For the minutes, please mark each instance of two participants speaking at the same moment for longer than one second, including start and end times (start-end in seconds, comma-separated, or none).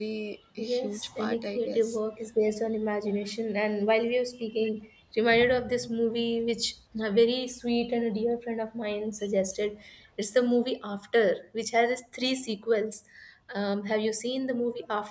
0.6-2.0